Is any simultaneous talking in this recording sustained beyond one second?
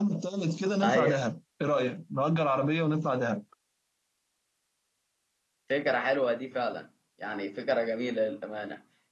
No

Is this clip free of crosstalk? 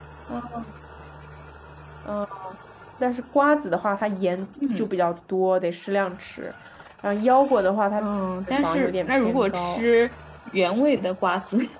No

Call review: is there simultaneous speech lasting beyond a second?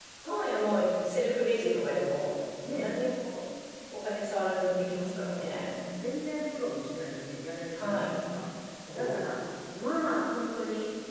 No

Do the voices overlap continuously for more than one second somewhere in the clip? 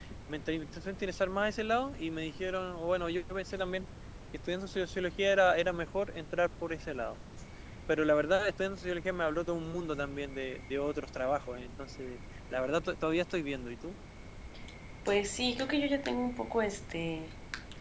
No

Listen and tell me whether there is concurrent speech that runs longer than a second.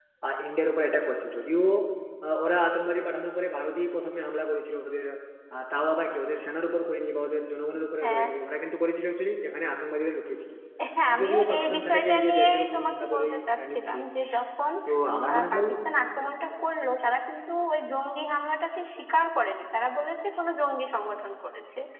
Yes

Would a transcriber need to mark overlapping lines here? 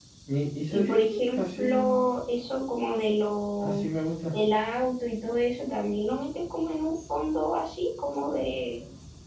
Yes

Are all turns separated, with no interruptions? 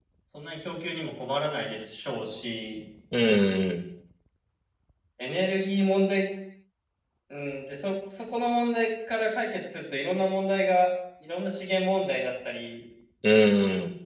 Yes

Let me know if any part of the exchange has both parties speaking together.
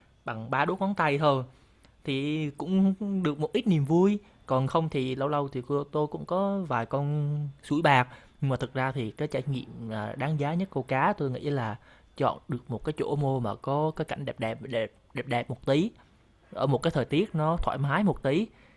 No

